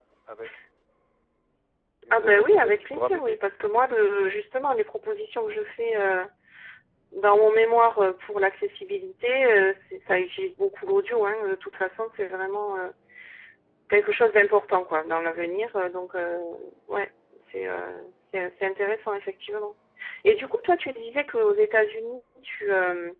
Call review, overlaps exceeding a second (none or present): present